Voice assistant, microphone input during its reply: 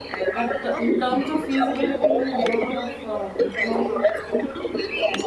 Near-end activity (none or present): present